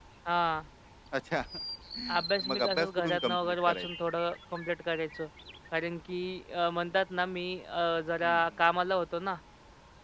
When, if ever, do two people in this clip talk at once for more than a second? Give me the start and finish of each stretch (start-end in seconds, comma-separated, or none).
2.2-3.9